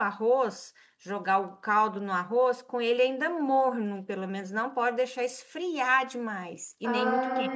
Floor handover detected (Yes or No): Yes